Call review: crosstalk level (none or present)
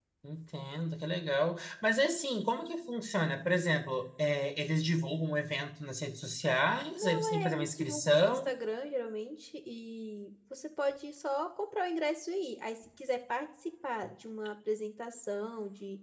present